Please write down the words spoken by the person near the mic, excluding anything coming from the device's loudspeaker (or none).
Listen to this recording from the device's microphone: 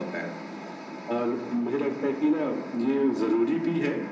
none